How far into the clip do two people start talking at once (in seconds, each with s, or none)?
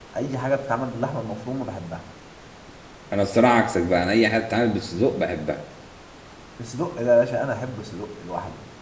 none